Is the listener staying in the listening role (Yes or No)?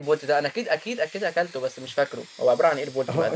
No